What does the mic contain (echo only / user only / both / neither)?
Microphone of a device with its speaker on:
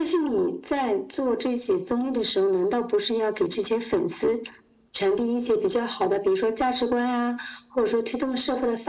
echo only